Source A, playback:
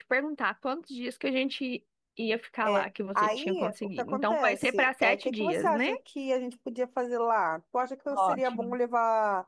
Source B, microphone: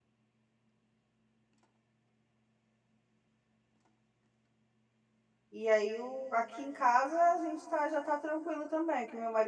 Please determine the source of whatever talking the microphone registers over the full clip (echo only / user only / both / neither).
user only